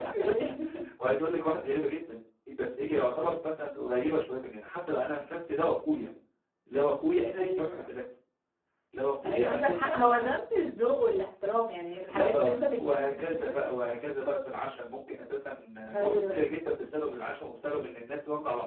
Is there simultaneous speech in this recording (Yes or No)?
Yes